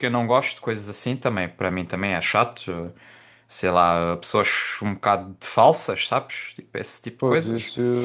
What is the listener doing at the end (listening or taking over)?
taking over